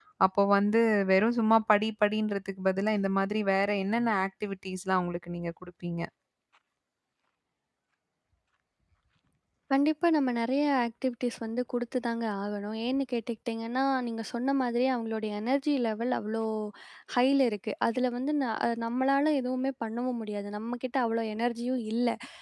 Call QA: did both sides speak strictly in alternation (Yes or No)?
Yes